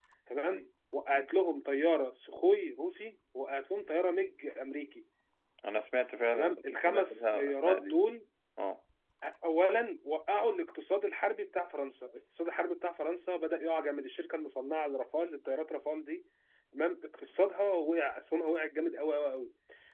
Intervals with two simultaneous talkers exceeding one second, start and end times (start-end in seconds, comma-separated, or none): 6.3-8.0